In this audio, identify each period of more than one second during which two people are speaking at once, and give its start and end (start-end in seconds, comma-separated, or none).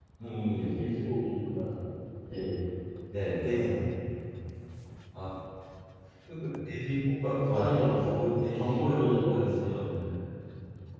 7.5-9.8